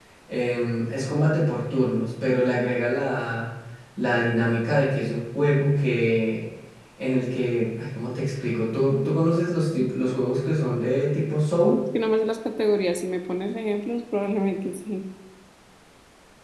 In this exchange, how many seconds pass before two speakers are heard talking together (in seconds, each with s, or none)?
none